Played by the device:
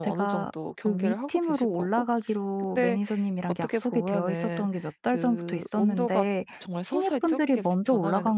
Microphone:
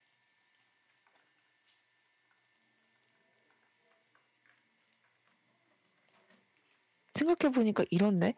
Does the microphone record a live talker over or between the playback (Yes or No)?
Yes